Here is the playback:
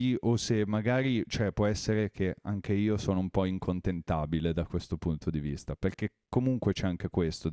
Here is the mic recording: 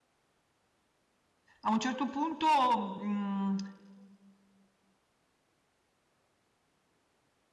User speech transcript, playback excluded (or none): a un certo punto, mhmm,